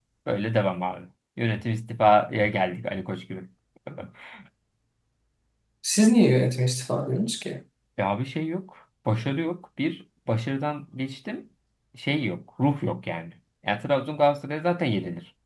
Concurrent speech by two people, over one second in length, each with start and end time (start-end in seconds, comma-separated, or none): none